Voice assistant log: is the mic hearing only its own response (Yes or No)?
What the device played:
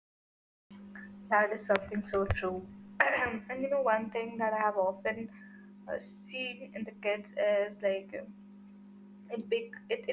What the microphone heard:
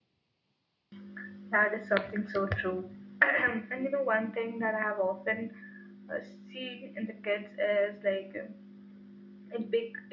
Yes